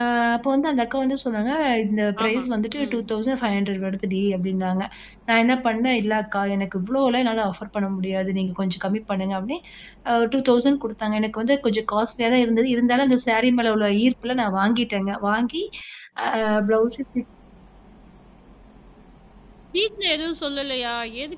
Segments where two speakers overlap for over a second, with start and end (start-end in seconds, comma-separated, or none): none